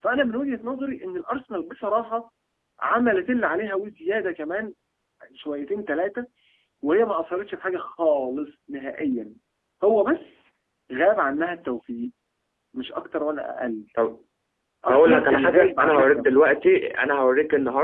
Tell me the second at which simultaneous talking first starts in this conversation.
15 s

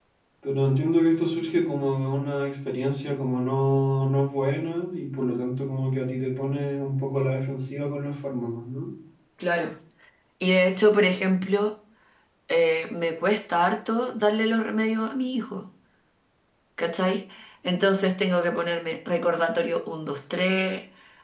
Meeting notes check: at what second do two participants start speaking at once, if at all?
none

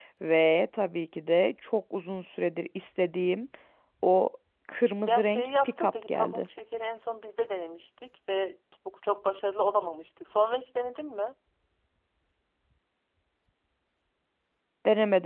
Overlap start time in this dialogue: 5 s

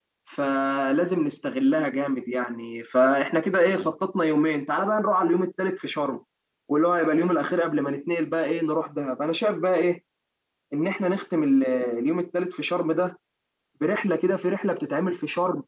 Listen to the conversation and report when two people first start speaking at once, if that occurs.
none

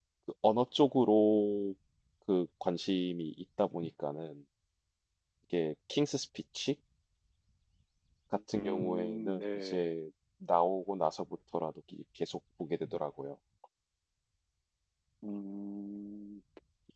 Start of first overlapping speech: 9 s

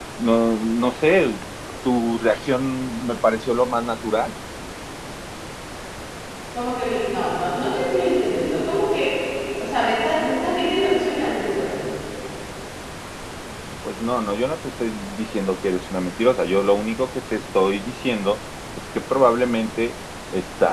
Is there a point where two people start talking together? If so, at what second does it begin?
none

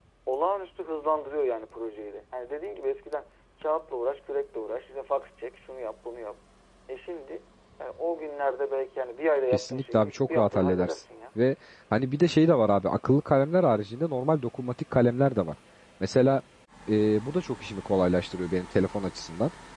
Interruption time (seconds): 10 s

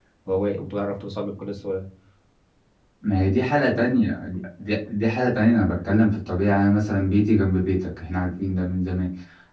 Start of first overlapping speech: none

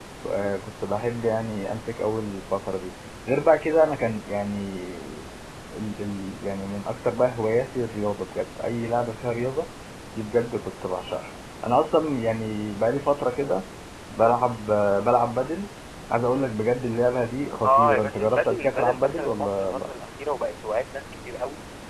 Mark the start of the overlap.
18 s

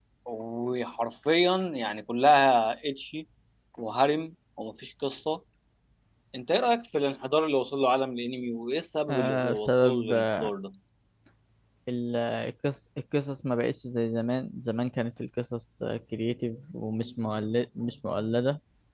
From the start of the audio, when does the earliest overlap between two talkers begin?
9 s

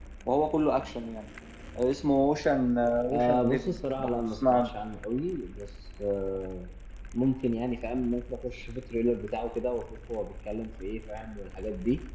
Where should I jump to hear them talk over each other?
3 s

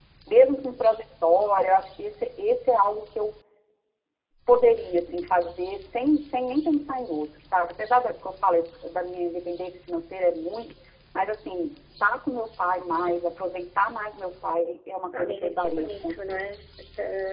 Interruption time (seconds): 15 s

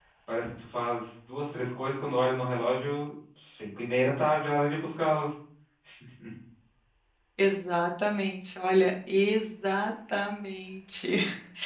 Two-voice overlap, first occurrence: none

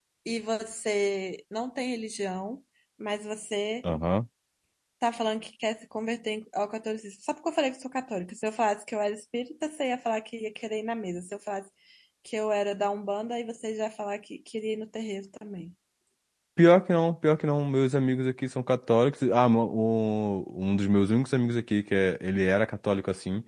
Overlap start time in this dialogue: none

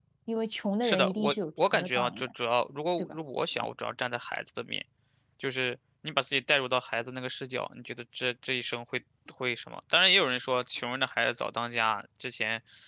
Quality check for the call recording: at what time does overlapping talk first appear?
1 s

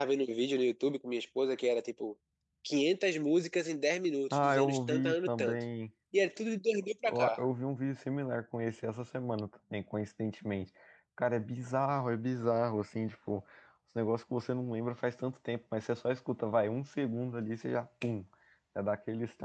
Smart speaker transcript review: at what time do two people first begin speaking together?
4 s

